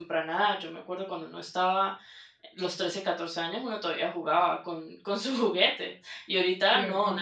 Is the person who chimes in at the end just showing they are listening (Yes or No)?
No